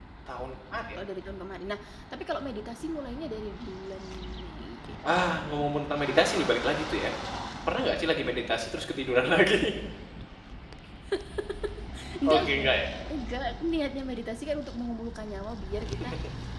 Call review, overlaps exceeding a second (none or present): none